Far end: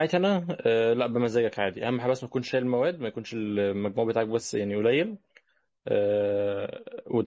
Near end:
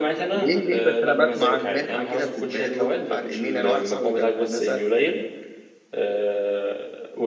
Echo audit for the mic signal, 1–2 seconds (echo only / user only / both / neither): both